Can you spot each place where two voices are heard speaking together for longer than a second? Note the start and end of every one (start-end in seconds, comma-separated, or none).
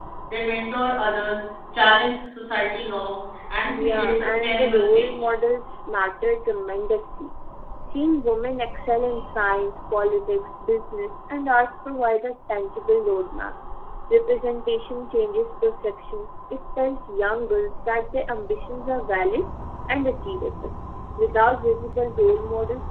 3.8-5.3